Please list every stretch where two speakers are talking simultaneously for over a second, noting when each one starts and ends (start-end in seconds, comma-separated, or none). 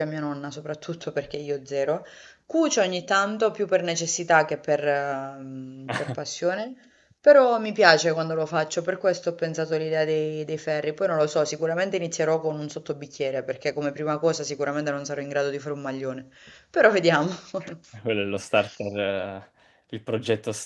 none